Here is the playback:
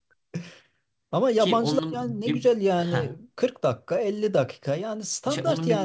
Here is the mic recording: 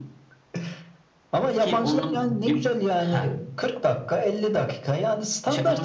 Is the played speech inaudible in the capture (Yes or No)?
No